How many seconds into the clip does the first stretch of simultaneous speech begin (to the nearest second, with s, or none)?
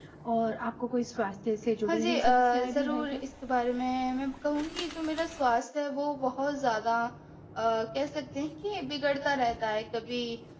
2 s